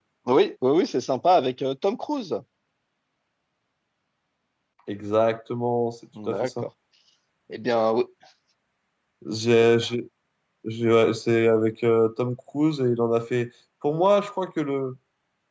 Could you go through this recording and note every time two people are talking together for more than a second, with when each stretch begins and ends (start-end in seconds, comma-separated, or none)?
none